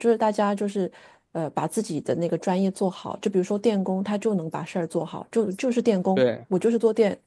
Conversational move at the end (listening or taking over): listening